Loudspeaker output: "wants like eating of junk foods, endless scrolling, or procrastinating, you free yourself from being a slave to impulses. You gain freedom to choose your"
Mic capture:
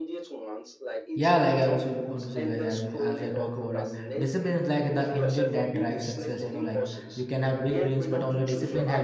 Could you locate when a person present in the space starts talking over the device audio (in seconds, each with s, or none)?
1.1 s